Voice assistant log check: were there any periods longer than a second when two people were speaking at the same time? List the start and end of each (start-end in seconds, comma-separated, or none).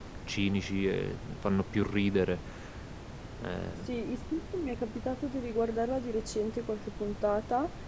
none